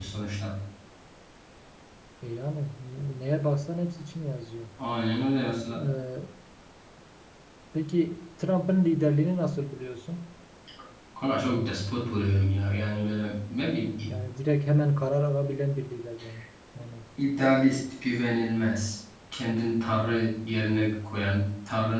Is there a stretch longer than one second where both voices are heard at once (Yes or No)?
No